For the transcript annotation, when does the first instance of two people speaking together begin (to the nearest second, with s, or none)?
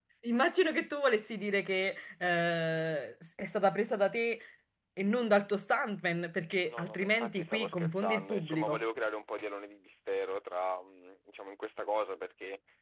7 s